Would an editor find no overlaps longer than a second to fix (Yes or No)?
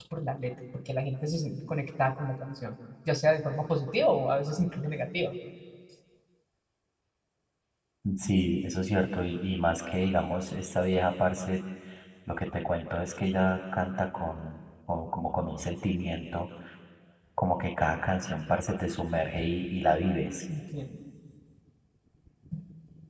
Yes